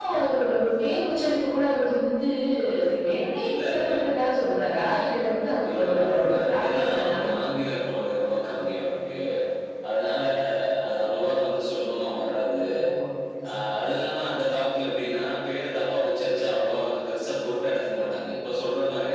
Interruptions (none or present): present